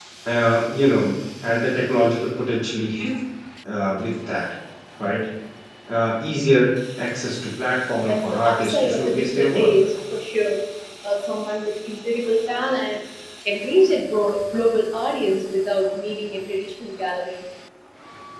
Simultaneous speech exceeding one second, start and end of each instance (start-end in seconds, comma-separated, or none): 8.0-9.7